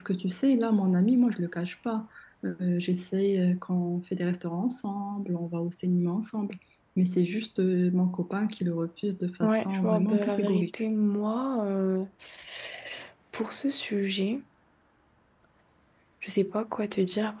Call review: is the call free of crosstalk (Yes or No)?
No